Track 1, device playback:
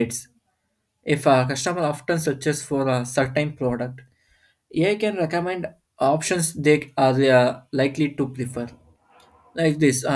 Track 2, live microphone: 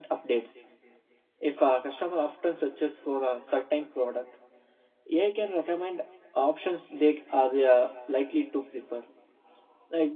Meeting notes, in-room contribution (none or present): none